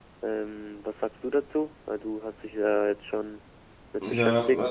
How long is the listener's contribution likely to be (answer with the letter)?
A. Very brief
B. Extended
B